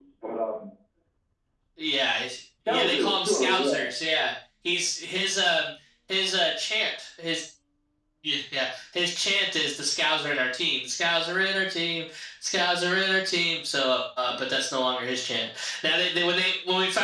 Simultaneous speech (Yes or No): Yes